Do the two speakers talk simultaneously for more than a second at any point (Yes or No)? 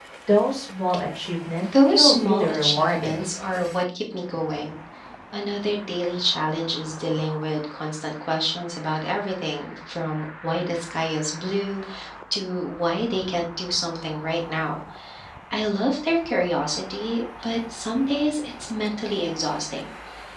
Yes